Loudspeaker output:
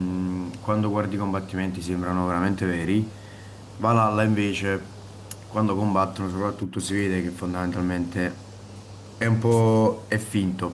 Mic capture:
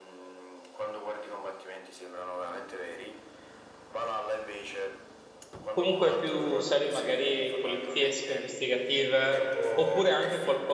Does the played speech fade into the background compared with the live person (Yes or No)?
Yes